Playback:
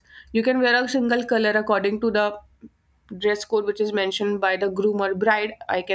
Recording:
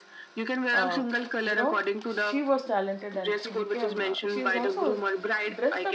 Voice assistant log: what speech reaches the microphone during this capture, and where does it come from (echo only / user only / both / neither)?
both